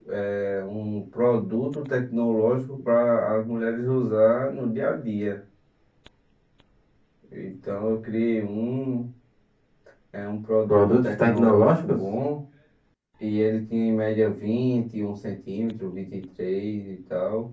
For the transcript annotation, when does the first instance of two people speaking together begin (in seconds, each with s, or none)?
10.7 s